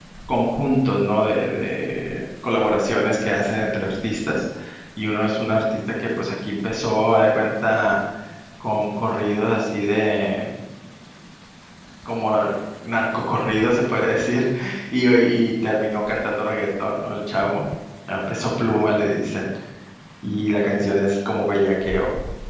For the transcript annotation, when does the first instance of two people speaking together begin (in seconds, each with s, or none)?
none